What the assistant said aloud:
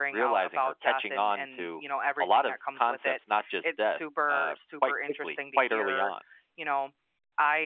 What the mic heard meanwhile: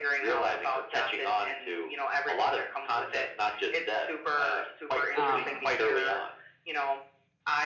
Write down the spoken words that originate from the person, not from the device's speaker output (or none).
um